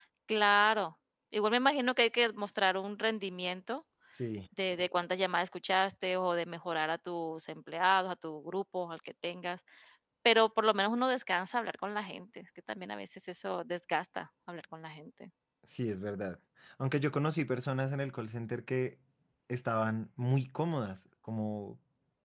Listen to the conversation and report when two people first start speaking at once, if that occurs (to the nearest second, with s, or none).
none